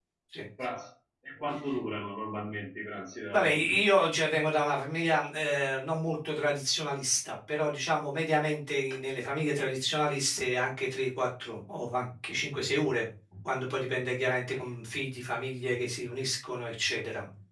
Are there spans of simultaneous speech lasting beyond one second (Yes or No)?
No